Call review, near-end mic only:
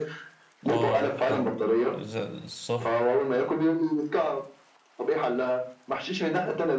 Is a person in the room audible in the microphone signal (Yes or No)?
Yes